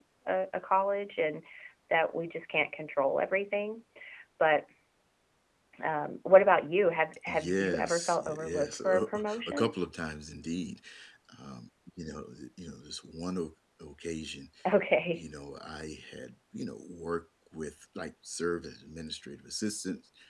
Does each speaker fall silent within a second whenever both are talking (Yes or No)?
No